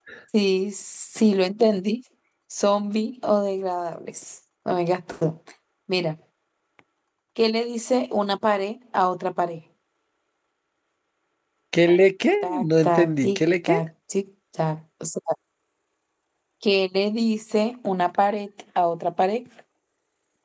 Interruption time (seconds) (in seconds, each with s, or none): 12.4 s